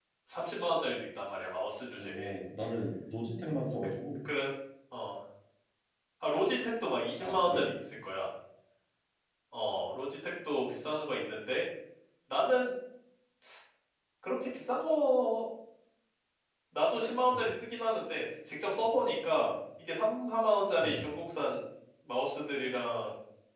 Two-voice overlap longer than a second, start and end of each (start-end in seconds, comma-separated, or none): none